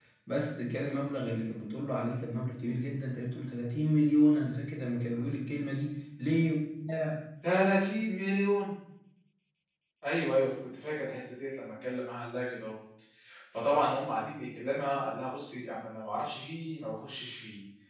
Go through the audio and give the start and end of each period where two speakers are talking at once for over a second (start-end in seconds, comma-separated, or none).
none